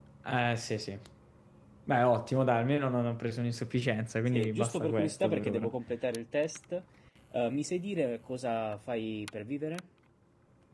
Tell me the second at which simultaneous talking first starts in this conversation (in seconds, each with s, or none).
4.3 s